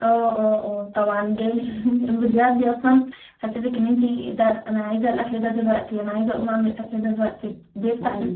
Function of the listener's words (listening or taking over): taking over